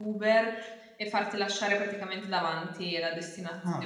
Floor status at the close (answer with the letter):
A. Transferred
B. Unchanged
A